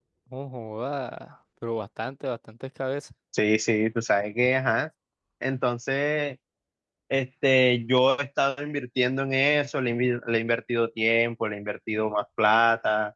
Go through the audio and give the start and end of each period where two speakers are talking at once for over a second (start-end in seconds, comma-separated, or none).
none